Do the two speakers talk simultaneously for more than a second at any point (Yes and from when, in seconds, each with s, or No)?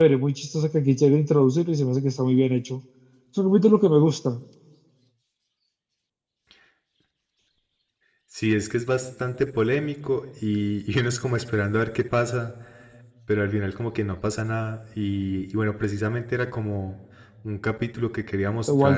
No